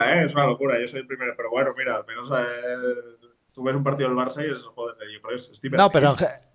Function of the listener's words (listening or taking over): taking over